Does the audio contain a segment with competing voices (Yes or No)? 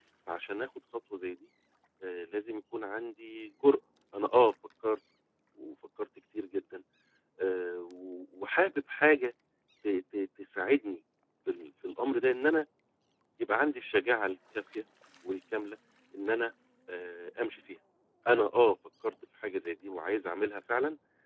No